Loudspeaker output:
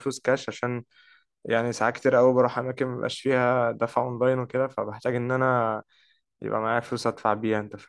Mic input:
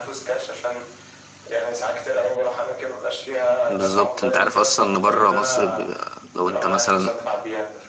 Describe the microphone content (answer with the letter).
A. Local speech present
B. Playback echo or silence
A